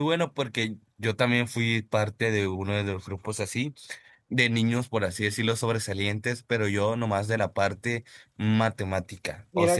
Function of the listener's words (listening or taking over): taking over